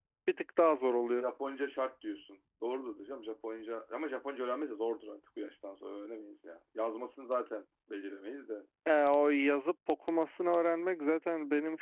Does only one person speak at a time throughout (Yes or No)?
Yes